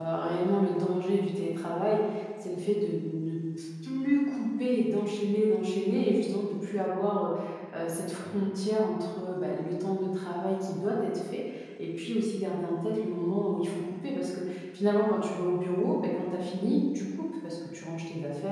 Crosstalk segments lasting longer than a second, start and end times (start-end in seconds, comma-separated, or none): none